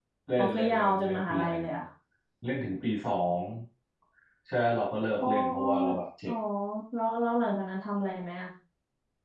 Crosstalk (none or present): present